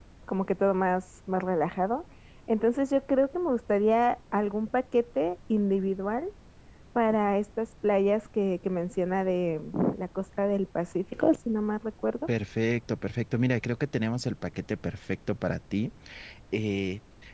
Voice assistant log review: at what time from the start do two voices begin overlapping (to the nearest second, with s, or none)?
none